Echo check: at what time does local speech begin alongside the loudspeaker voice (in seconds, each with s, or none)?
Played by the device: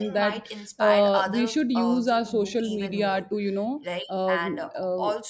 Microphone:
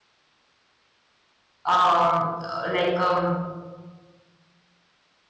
1.6 s